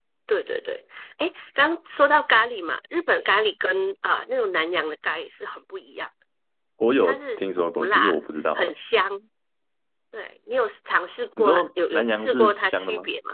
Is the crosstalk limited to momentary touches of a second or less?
No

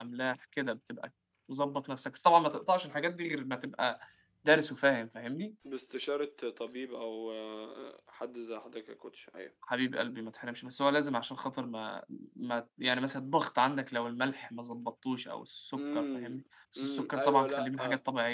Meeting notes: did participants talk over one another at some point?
Yes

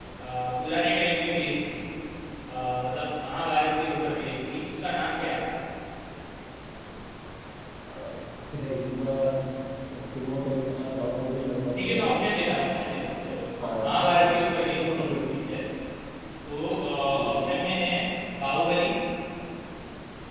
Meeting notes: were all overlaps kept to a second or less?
Yes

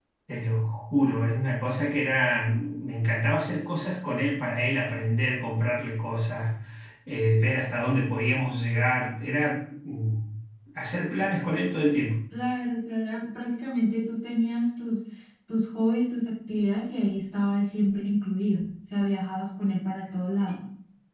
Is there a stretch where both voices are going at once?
No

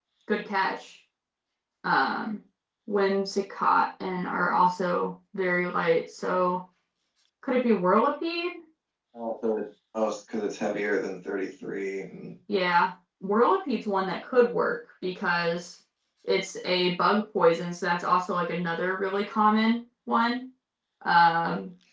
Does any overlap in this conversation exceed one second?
No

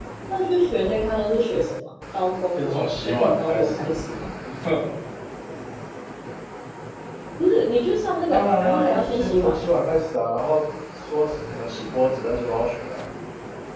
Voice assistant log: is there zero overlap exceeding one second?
No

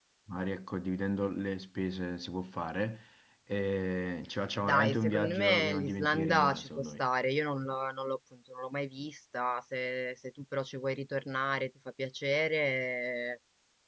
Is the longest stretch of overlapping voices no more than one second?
No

